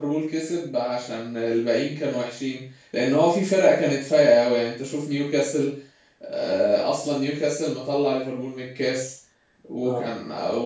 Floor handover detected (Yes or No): No